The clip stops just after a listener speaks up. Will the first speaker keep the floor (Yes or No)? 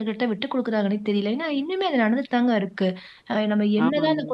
Yes